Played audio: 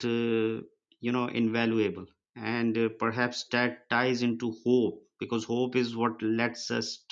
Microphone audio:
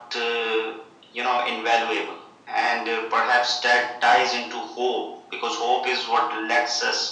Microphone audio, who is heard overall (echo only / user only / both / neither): echo only